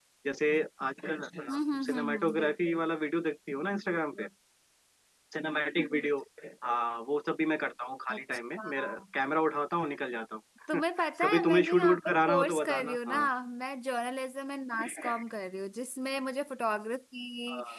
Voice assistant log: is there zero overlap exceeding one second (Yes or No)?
No